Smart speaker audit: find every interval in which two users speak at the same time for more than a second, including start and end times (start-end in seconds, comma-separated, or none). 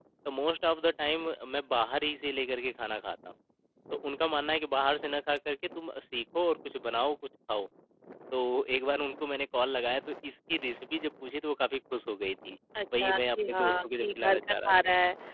12.9-14.7